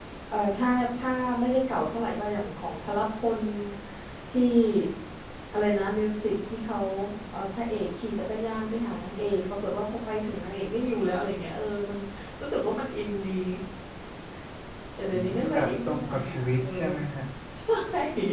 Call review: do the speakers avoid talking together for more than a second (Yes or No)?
No